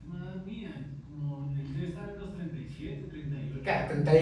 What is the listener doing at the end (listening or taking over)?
taking over